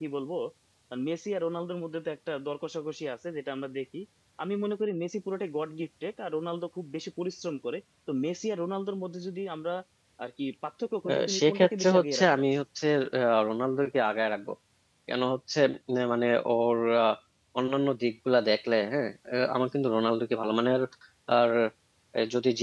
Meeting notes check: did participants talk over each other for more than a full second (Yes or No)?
Yes